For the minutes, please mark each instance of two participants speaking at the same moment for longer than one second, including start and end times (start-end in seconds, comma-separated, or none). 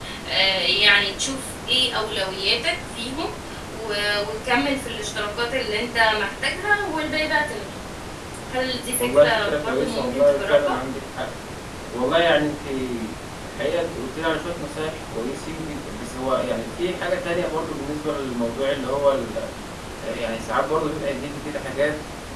9.0-10.7